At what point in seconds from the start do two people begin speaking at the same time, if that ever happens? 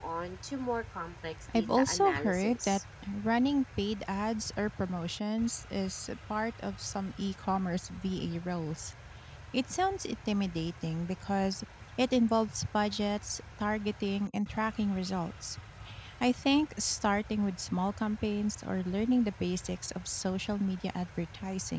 1.5 s

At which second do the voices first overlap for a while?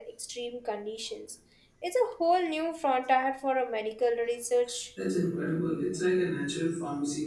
none

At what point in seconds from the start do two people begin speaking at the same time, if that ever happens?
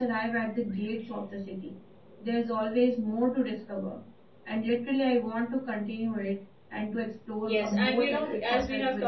7.4 s

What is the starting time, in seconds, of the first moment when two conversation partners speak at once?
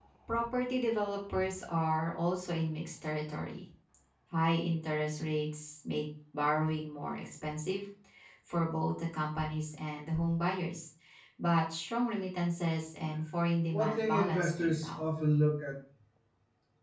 13.7 s

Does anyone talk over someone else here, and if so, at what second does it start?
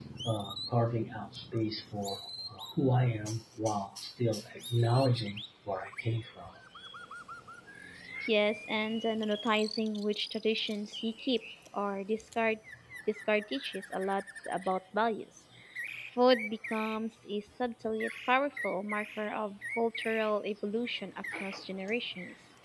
none

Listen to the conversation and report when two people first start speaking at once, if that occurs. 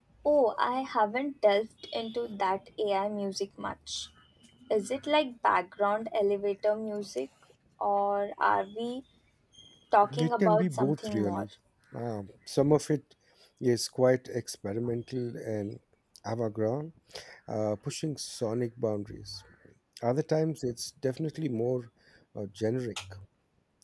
10.2 s

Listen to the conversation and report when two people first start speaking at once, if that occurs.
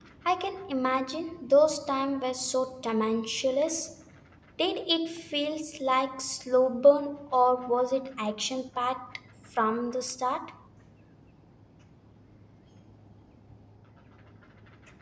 none

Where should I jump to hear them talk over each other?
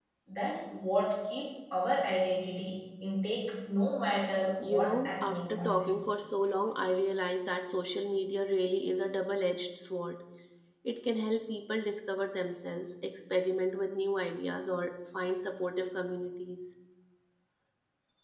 4.6 s

